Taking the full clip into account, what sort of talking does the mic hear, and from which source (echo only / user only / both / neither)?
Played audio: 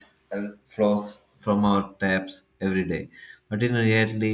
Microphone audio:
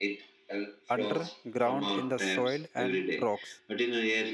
both